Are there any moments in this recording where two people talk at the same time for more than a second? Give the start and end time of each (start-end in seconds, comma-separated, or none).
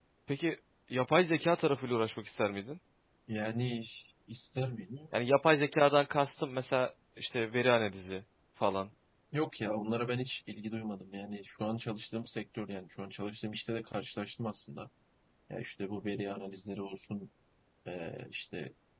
none